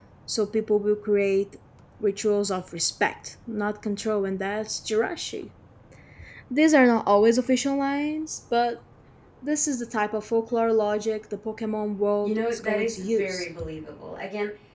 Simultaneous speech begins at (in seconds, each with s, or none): 12.2 s